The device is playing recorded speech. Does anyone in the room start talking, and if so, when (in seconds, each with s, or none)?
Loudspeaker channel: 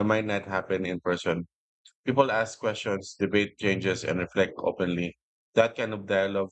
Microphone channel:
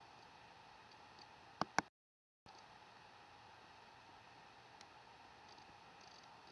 none